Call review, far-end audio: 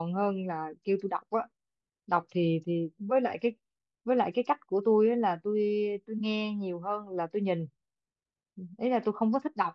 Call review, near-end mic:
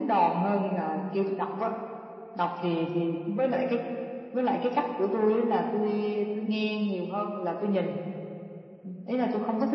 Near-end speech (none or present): none